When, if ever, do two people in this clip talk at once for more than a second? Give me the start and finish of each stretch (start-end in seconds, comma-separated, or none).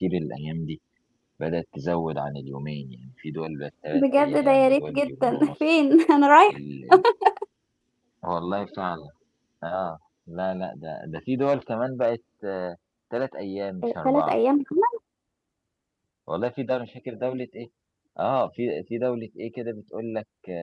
3.9-5.5